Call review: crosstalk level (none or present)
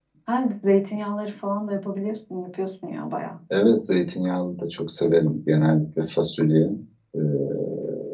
none